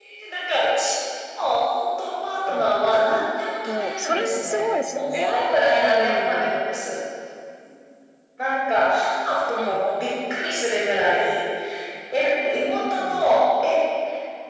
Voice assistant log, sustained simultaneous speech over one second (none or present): present